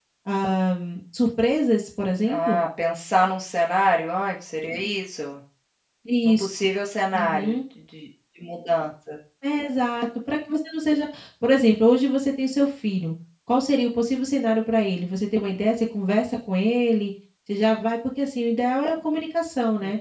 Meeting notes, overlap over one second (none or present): none